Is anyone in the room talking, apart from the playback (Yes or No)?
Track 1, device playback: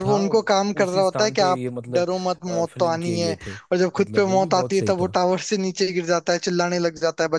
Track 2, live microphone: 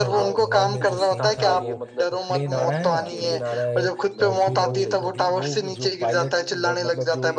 Yes